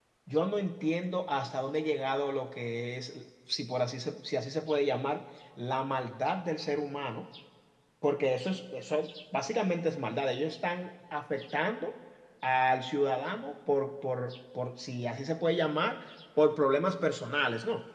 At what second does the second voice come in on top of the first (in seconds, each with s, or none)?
none